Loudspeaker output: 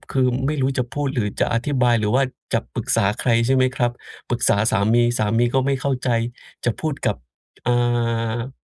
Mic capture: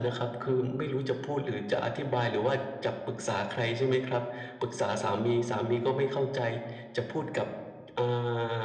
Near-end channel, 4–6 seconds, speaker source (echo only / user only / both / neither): echo only